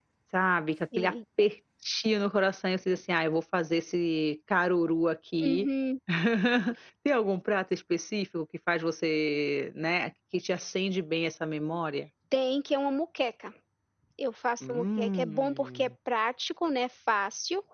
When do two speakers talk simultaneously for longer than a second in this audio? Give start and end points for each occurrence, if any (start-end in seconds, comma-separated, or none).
14.6-15.9